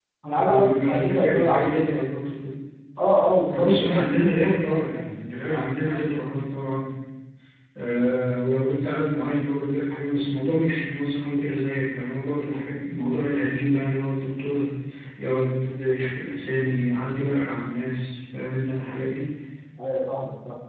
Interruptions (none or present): present